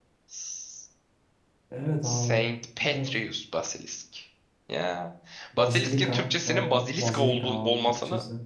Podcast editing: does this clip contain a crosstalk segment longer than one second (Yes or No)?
Yes